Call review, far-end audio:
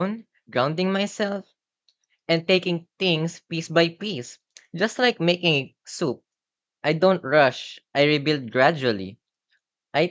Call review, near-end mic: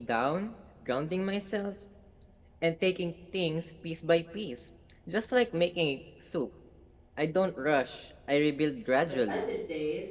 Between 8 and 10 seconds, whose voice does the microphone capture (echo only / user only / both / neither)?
both